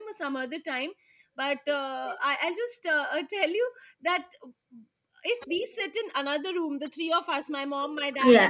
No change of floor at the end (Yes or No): Yes